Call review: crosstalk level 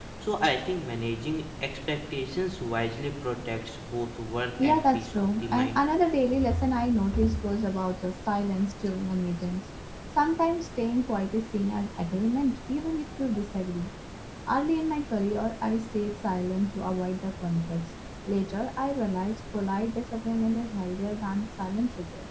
present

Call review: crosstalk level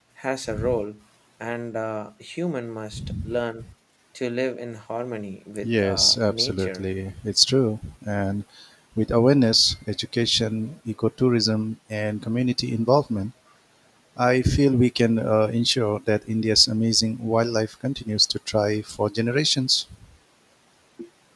present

